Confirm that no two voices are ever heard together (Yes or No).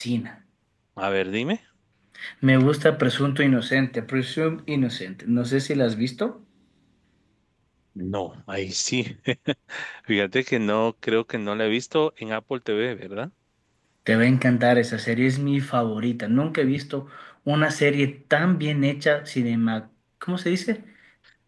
Yes